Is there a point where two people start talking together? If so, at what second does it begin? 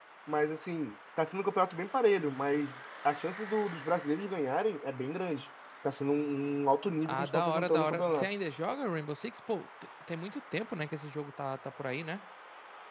7.0 s

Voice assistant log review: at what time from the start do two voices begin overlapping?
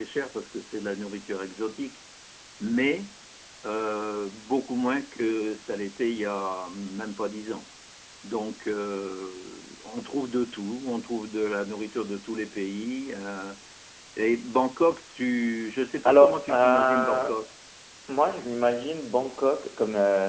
16.0 s

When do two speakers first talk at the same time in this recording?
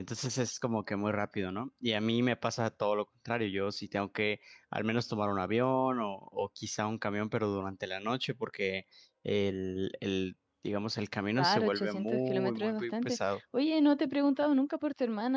11.3 s

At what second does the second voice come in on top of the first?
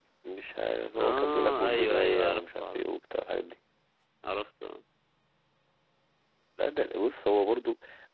1.0 s

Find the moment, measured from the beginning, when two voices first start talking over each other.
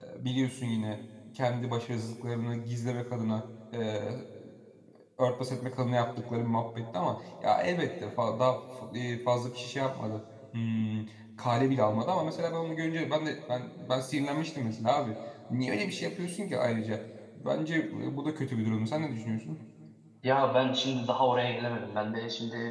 none

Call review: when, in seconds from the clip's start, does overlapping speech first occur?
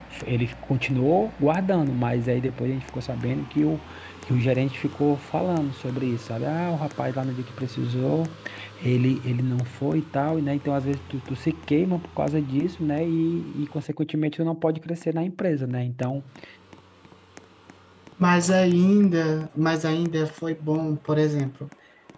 none

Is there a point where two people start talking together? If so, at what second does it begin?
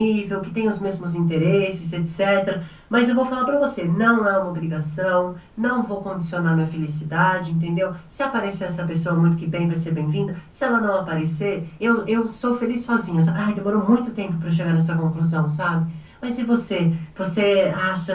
none

